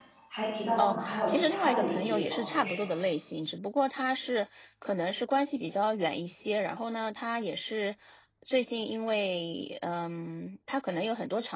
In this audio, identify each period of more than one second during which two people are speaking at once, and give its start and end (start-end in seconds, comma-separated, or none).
0.8-2.9